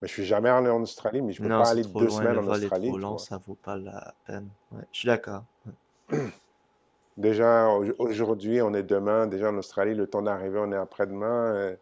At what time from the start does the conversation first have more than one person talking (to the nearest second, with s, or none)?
1 s